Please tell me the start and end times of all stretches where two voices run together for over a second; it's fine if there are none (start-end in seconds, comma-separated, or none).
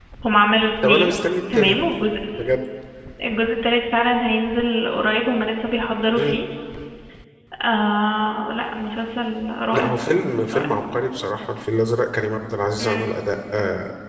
none